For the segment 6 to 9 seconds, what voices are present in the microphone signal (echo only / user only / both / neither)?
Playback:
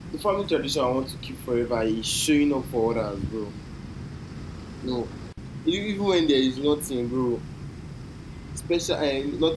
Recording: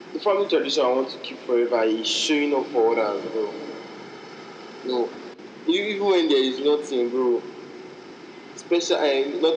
echo only